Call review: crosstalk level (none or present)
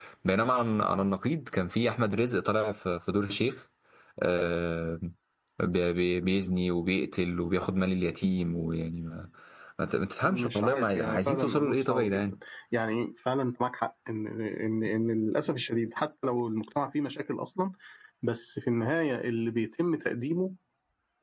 present